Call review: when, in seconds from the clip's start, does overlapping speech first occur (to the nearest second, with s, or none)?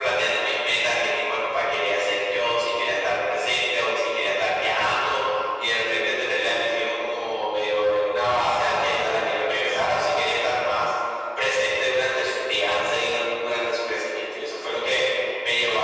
none